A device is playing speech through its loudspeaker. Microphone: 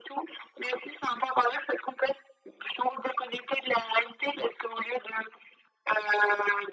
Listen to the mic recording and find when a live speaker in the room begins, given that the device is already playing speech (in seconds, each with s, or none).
none